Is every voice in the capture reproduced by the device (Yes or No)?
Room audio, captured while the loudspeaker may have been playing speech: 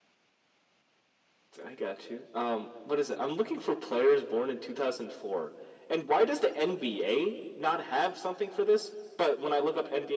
Yes